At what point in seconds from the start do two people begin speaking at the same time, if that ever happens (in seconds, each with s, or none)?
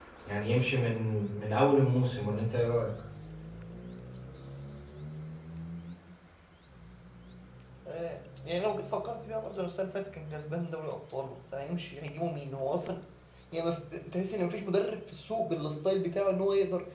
none